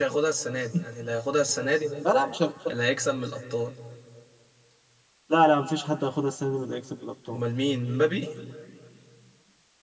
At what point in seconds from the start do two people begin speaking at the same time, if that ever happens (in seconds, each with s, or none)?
none